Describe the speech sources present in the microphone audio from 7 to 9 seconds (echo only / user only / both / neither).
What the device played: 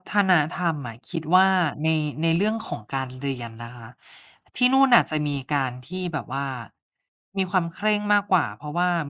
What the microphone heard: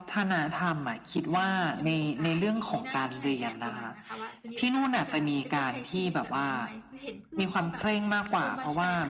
both